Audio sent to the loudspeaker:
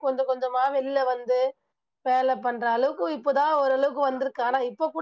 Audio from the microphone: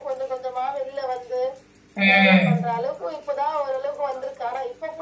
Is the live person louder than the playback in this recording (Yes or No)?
Yes